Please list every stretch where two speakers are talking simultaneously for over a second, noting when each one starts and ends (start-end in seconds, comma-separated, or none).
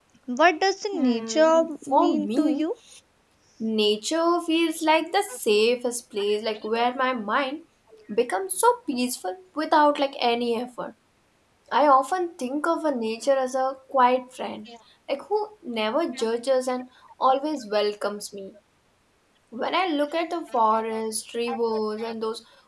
0.9-2.7